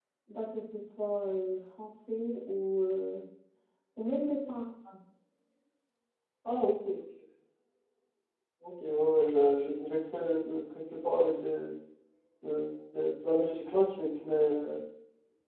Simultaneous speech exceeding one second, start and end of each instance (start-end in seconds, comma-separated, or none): none